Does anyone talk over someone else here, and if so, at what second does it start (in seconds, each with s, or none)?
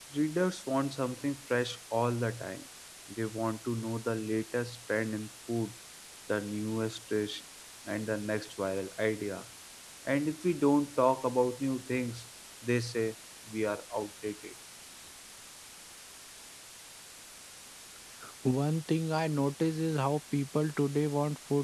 none